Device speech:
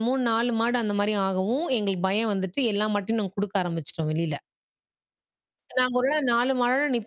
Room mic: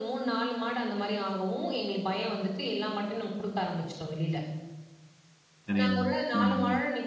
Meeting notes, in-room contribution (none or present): present